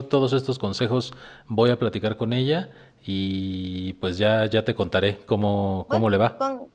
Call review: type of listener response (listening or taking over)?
taking over